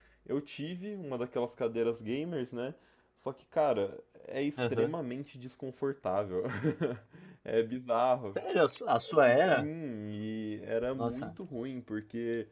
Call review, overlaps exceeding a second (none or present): none